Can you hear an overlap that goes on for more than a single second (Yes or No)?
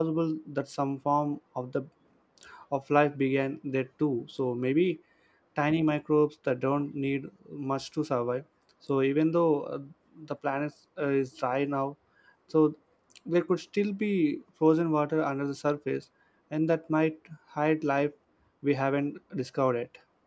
No